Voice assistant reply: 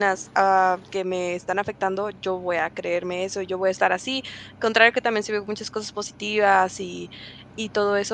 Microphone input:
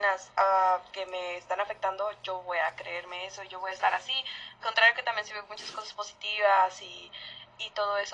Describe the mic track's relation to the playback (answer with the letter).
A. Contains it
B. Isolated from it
A